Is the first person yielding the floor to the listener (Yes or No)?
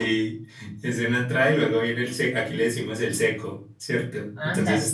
No